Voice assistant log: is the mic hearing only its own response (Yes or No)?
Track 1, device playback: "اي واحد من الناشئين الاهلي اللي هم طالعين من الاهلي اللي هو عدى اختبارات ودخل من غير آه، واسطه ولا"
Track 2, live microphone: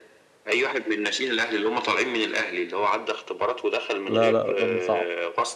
No